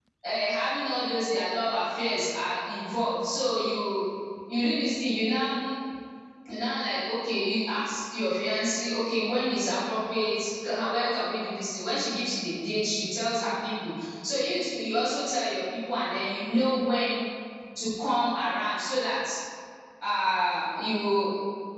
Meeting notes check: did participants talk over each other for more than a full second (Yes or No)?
No